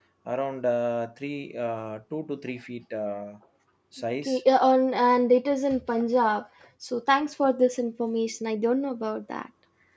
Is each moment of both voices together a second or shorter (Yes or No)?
Yes